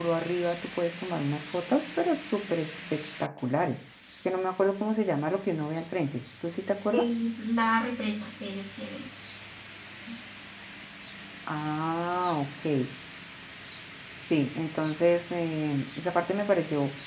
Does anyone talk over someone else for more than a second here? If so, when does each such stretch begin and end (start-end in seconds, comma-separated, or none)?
none